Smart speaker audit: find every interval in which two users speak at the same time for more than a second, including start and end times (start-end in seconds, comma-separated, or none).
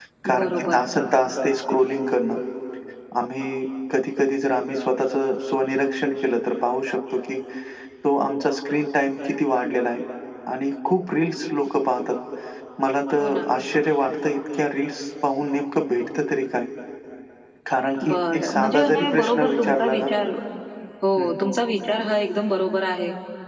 18.0-20.1